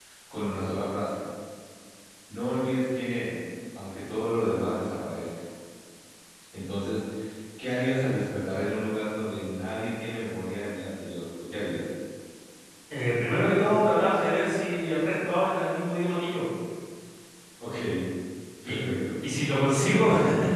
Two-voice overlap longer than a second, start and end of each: none

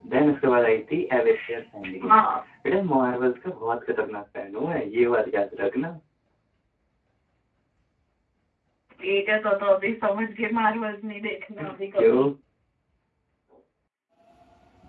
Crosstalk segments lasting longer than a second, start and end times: none

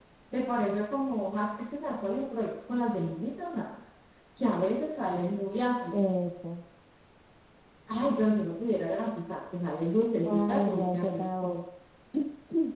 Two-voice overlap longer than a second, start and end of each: 10.2-11.6

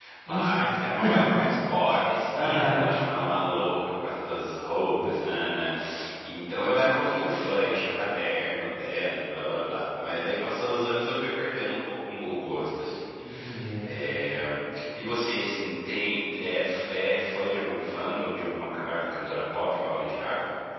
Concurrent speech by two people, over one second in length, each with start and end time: none

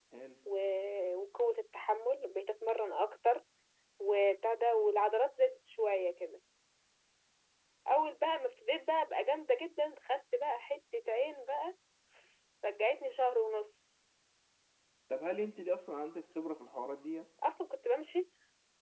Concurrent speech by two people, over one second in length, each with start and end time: none

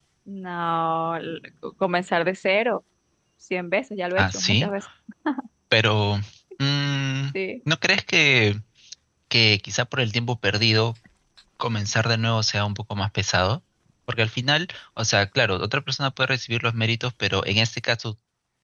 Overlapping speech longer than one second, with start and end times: none

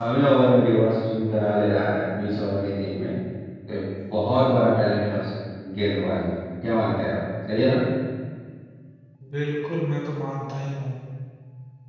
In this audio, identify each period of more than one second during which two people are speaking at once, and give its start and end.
none

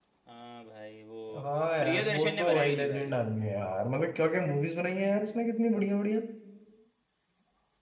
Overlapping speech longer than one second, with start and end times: 1.8-3.1

